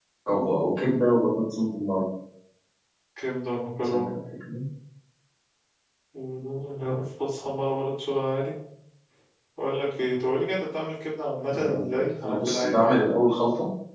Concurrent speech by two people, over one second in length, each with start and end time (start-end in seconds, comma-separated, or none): 11.5-13.0